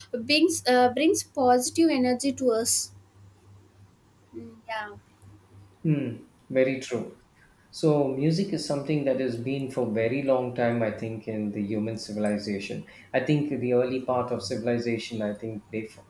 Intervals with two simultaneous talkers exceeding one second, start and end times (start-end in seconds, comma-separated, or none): none